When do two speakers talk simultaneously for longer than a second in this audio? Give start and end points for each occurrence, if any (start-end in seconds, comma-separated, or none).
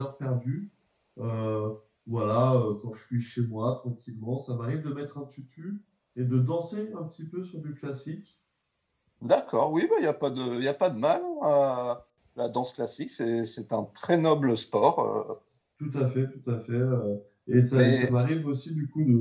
none